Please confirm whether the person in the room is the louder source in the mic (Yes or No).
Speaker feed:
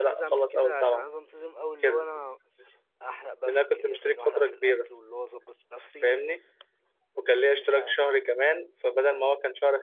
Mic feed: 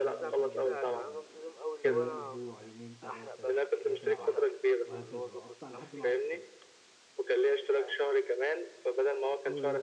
No